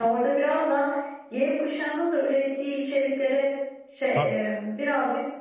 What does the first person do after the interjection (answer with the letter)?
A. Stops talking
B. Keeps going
B